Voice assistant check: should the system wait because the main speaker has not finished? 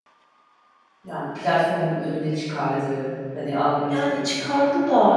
No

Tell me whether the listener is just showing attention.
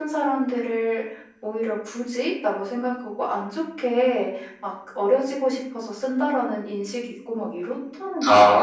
No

